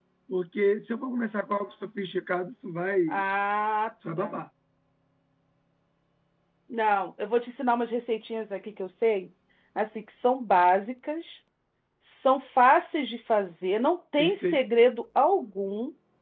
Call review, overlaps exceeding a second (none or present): none